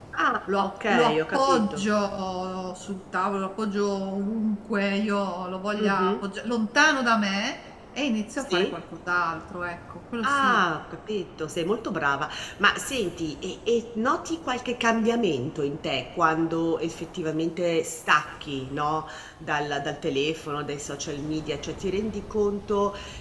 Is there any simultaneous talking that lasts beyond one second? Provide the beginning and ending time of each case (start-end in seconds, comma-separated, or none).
0.6-1.8